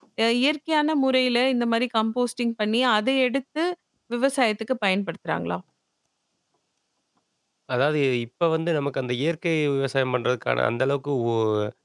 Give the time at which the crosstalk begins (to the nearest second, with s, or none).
none